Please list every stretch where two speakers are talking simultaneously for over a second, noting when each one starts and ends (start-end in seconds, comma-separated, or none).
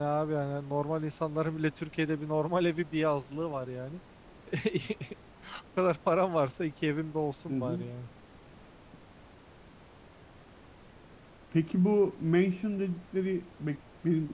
none